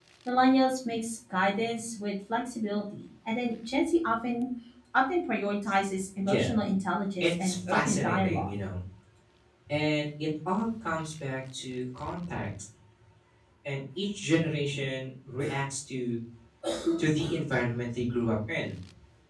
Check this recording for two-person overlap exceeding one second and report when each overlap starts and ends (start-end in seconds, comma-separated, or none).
7.2-8.6